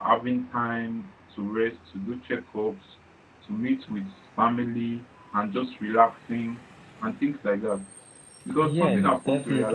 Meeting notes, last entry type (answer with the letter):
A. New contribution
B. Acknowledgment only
A